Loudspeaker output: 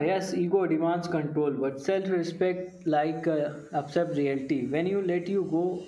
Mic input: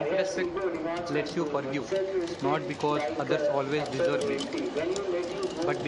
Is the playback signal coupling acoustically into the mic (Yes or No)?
Yes